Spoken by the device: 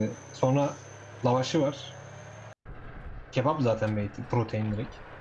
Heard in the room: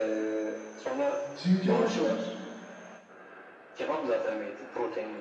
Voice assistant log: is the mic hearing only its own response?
No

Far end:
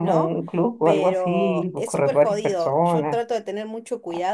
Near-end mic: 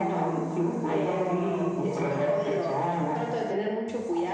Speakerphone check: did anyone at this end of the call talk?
No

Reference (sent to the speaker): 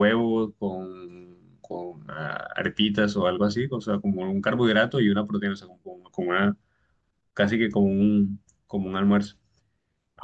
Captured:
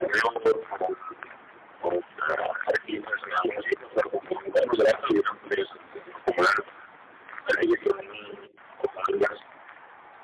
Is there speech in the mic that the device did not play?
No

